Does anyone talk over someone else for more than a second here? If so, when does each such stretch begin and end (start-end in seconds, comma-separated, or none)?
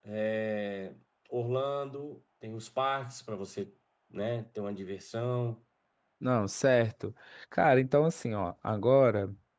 none